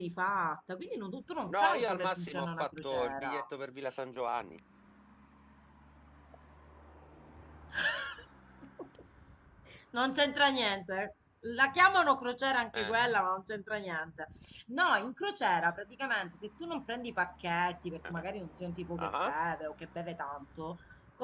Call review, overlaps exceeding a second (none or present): present